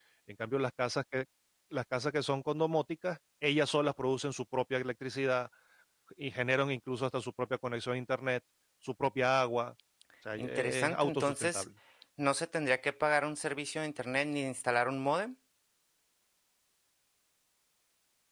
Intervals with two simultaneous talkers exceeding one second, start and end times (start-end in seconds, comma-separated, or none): 10.4-11.6